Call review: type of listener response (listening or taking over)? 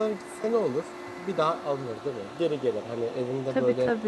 listening